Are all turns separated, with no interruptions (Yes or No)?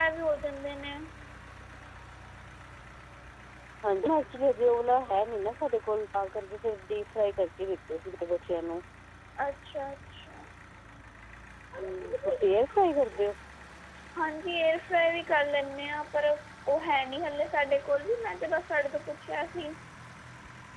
Yes